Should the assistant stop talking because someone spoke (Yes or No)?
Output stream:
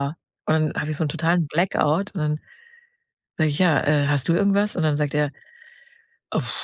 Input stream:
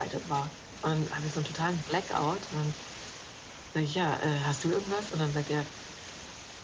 No